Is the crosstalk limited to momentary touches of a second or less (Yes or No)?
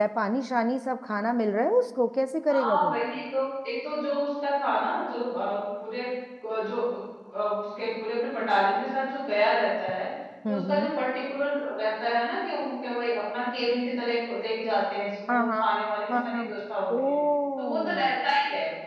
Yes